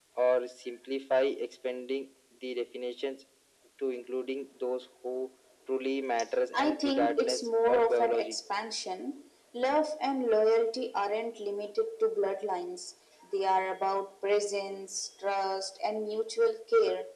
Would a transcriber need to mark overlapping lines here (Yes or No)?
Yes